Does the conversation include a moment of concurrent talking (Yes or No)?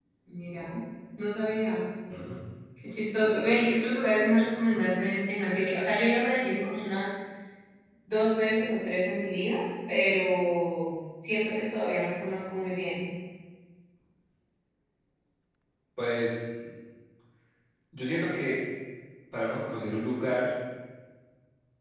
No